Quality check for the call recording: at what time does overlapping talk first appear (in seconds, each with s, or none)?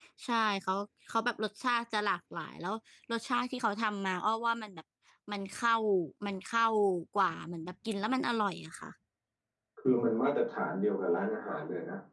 none